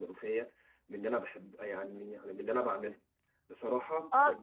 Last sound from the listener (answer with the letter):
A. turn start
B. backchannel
B